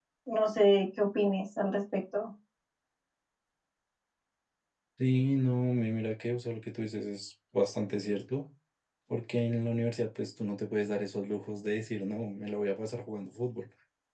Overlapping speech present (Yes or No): No